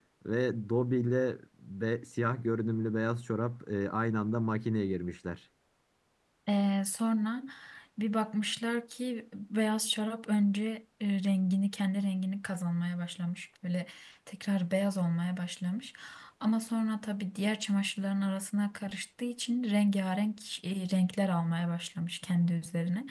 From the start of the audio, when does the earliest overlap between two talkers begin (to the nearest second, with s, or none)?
none